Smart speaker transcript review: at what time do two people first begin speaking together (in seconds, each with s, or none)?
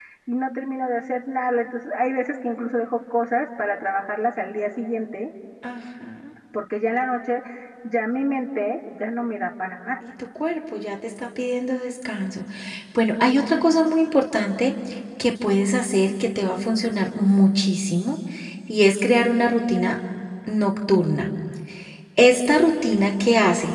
none